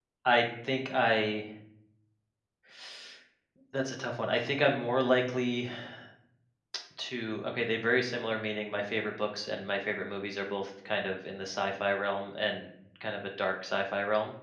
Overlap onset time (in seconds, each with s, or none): none